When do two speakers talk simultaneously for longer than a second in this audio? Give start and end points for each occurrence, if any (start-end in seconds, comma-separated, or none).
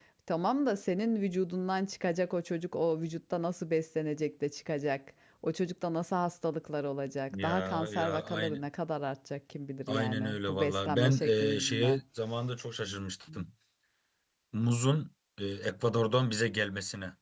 7.3-8.6, 9.9-12.0